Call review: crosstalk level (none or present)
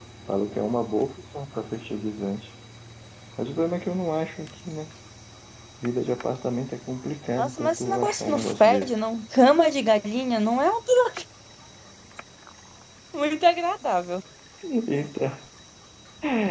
present